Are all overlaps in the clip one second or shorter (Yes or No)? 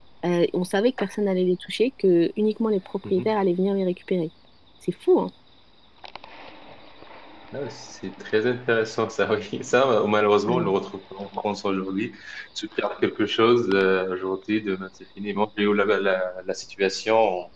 Yes